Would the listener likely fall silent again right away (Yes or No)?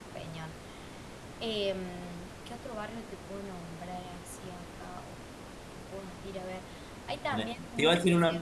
No